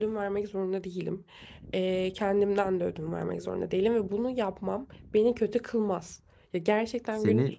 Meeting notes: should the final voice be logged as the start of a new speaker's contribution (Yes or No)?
No